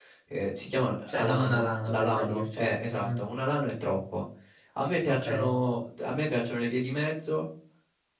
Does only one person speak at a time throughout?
No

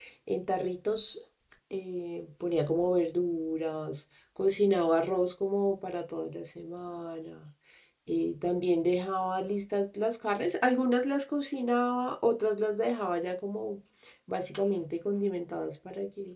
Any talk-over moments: No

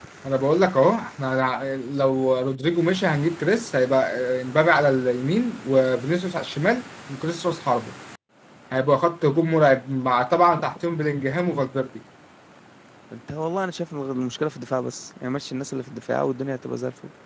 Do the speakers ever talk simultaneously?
No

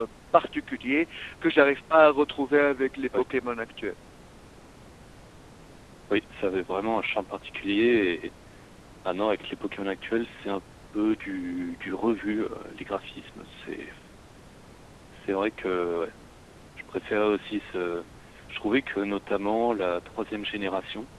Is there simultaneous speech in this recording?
No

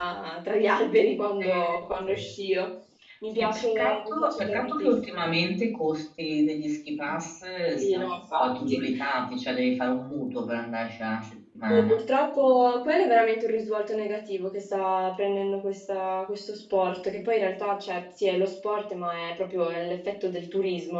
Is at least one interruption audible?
Yes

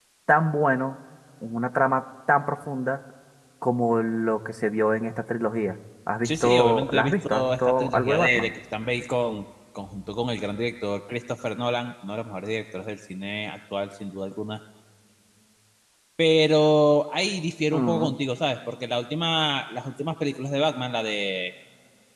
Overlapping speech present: Yes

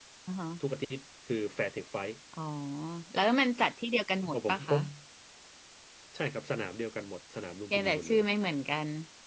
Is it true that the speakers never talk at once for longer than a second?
Yes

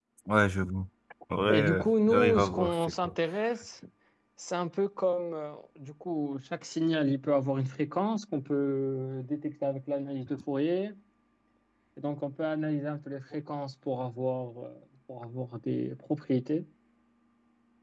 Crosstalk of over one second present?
Yes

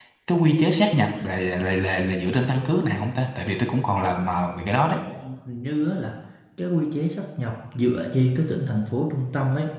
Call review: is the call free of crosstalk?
Yes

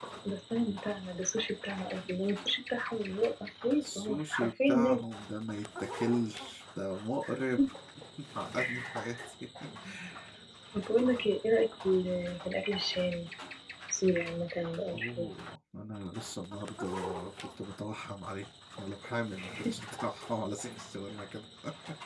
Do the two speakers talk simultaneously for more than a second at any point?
Yes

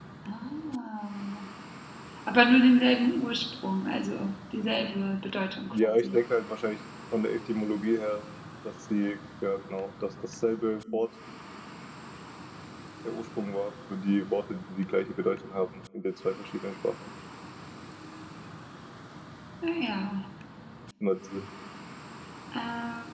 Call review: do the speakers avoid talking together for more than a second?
Yes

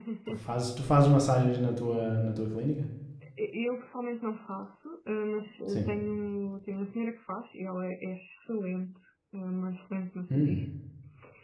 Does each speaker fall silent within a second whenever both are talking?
Yes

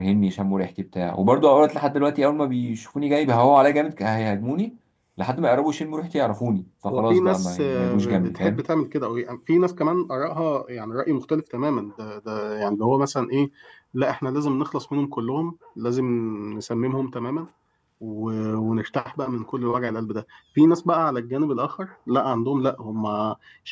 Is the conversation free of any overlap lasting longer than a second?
No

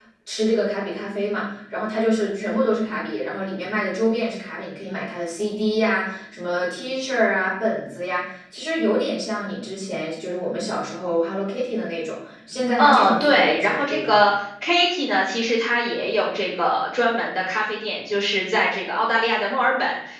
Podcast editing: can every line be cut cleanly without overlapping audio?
No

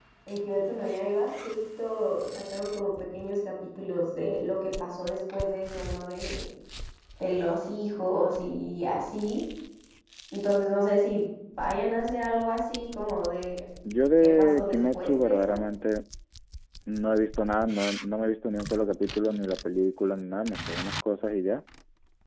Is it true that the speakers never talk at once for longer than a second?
No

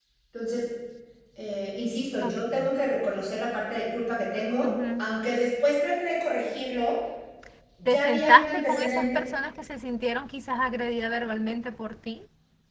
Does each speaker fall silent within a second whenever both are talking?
No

